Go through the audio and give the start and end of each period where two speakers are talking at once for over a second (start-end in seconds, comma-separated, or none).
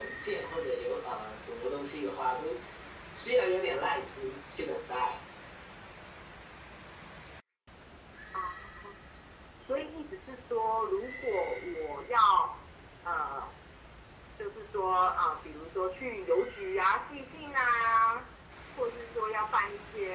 none